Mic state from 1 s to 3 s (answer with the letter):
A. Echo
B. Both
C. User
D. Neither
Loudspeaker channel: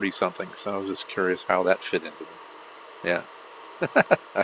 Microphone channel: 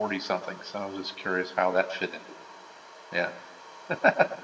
A